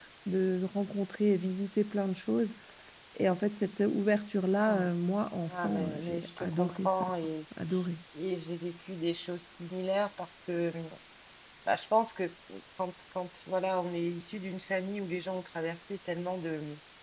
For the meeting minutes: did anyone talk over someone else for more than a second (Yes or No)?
Yes